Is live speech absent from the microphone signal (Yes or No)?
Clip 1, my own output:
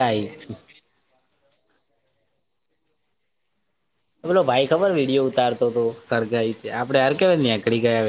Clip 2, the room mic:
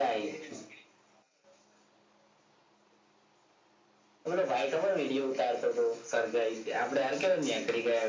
Yes